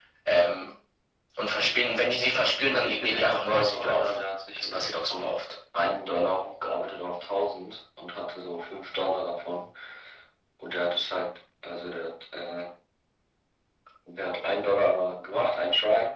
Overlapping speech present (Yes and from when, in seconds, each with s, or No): Yes, from 2.7 s